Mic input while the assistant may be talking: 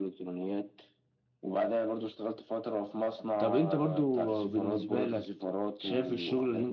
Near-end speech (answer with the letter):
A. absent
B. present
B